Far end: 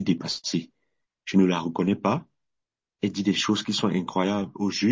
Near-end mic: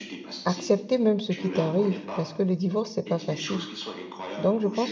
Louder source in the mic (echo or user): user